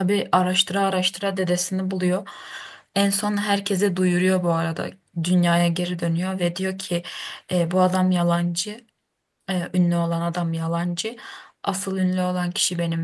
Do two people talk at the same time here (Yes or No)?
No